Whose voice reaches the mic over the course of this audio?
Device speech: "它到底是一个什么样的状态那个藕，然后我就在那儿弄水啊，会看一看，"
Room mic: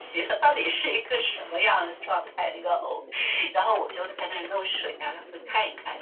echo only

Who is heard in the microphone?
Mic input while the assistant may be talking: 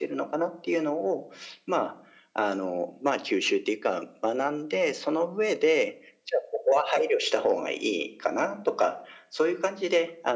echo only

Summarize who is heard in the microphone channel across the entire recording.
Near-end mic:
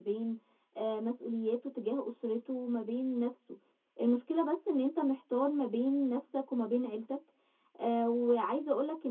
user only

